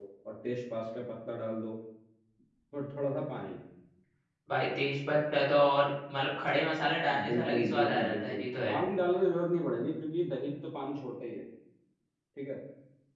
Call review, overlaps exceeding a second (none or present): present